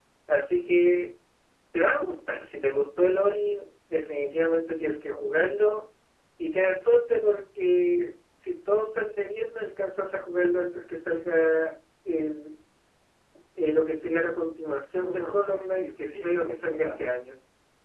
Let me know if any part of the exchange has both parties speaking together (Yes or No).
Yes